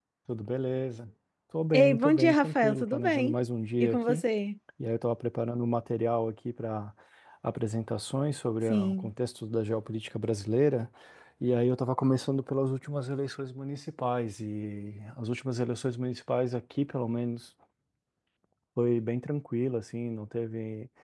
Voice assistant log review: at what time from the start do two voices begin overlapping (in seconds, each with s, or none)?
1.7 s